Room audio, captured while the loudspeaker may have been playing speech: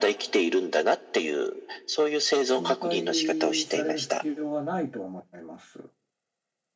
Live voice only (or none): 心配される必要はないと思います。